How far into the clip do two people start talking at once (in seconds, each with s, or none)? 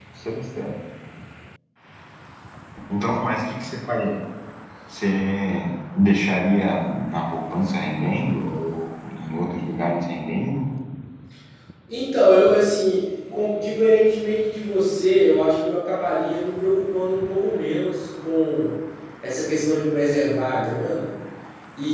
none